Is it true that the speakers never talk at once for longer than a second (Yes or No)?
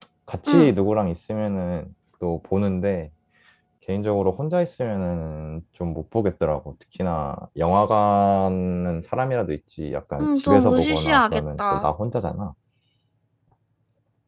No